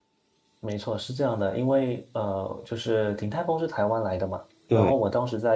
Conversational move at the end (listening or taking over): listening